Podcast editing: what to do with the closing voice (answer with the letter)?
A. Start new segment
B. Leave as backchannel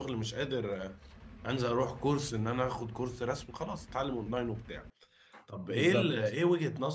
B